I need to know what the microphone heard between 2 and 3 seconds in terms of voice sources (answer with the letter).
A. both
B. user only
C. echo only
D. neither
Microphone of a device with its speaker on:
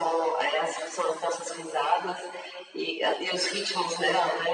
C